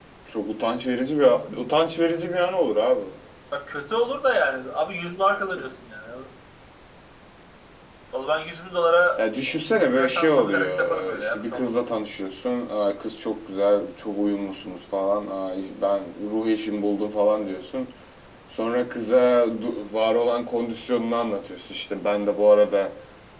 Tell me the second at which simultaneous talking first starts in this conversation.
9.9 s

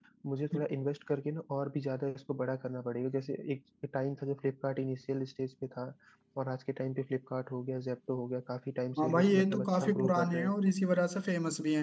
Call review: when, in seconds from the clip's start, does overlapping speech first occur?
9.0 s

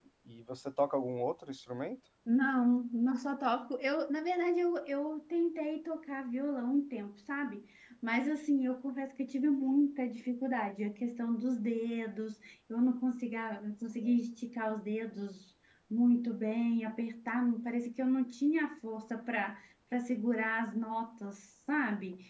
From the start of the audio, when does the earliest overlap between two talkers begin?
none

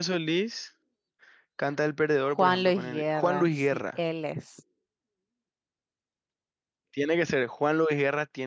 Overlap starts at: 2.4 s

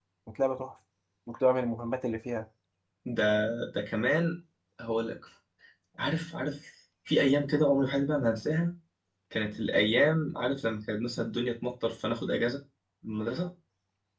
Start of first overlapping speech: none

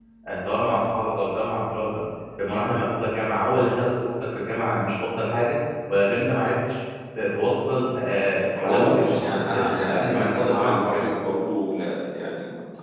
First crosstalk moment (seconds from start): 8.6 s

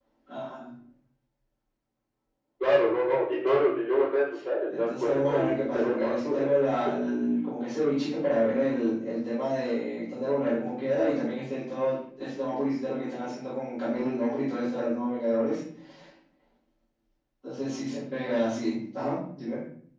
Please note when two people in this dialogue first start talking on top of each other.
4.7 s

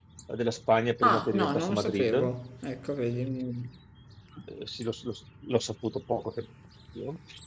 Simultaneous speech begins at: 1.0 s

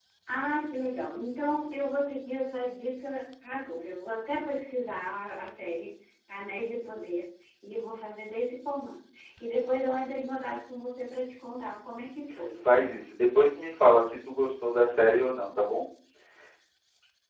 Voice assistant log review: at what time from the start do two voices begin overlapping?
none

